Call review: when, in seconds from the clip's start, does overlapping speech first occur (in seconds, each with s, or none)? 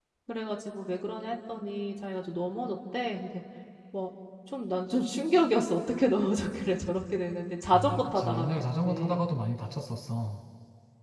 7.7 s